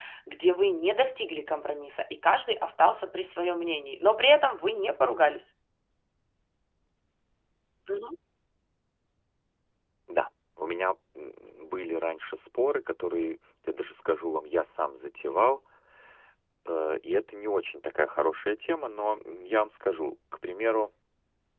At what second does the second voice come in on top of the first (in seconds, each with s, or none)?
none